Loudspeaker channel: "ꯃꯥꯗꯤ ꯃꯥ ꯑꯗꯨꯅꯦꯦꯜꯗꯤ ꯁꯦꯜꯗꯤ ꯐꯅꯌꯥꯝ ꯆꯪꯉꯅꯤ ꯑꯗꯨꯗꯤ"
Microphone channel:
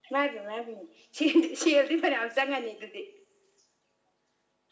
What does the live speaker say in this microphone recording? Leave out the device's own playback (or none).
none